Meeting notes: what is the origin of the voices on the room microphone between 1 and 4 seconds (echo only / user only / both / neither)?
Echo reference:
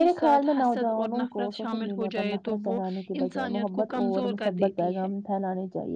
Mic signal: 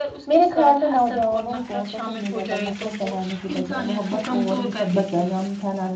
echo only